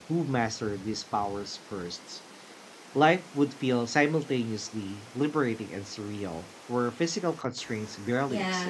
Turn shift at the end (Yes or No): Yes